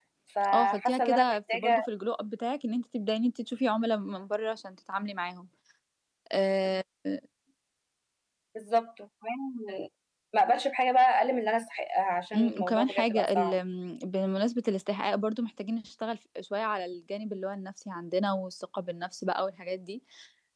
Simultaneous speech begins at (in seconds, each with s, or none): 0.5 s